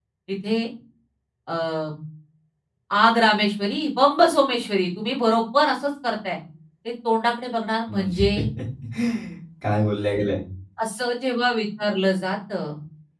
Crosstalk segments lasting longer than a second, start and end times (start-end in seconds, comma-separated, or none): none